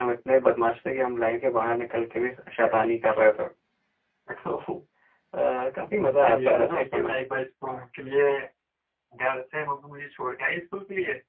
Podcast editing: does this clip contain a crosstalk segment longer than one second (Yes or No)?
Yes